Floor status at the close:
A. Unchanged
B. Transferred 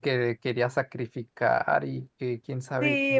B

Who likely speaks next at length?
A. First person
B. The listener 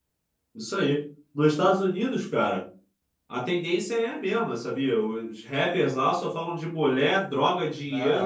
B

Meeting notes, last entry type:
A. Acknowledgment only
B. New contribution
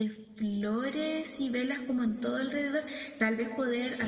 A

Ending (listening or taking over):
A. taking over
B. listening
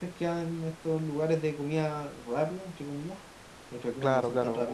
A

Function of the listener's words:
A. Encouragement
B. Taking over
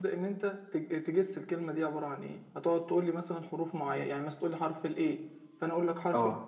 A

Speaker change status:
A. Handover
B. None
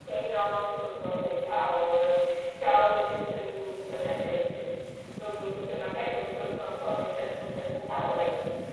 A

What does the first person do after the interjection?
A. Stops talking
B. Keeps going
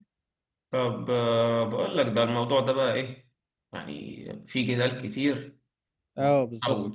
B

